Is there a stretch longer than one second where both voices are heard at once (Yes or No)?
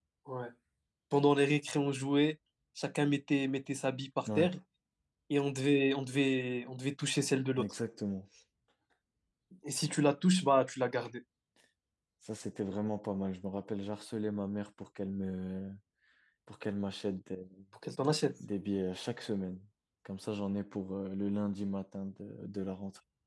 No